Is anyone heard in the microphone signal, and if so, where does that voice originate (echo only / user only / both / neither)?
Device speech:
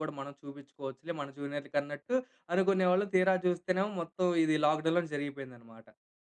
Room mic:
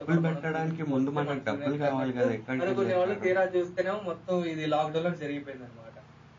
both